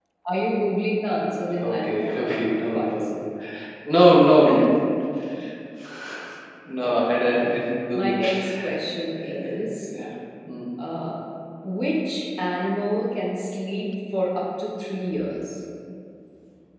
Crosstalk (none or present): present